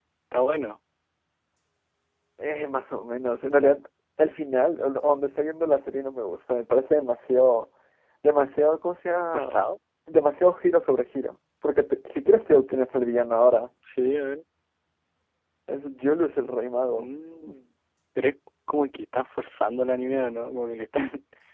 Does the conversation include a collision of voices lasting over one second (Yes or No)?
No